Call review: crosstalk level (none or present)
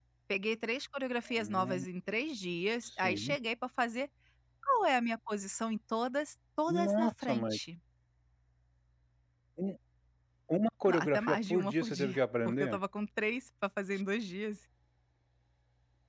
present